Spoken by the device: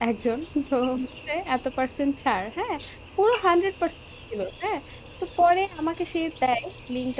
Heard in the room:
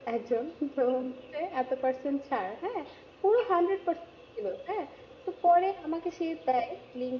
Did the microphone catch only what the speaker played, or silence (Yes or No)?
Yes